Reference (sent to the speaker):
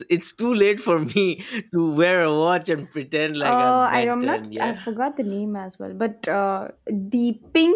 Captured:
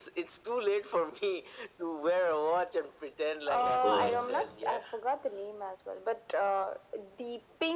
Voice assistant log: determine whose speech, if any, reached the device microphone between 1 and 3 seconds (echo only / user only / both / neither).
echo only